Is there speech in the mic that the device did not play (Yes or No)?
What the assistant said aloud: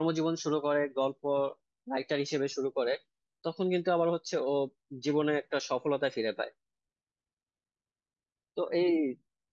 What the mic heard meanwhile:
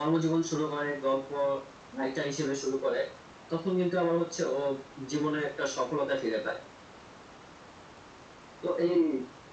No